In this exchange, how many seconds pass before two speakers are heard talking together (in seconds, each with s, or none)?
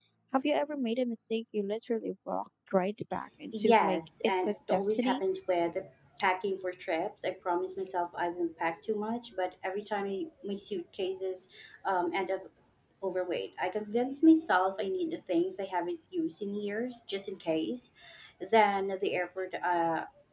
3.5 s